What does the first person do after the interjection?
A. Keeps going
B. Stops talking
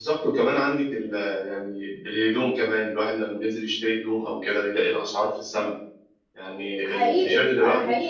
B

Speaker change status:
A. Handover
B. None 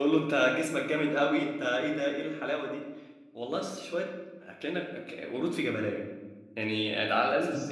B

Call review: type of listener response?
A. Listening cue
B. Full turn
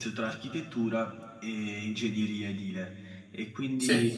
A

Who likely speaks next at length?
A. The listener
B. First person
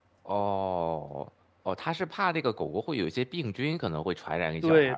A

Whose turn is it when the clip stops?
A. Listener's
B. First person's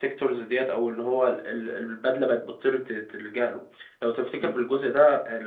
B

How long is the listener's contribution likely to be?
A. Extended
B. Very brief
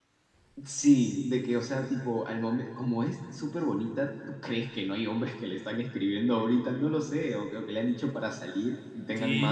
A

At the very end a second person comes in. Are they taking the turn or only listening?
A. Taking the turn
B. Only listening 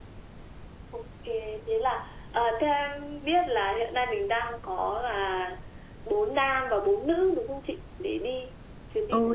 A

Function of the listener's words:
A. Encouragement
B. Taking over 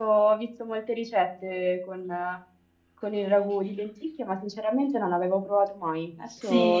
B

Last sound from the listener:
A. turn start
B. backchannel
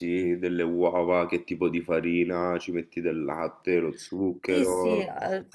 A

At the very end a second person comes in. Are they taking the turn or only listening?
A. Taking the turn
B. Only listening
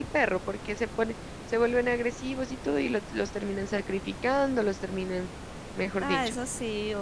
A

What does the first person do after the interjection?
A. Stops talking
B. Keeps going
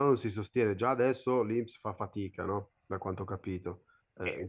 A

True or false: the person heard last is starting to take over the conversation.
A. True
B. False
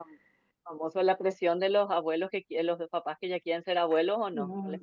A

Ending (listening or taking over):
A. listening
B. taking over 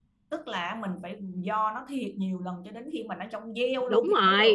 B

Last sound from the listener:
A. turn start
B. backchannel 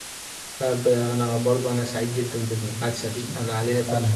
B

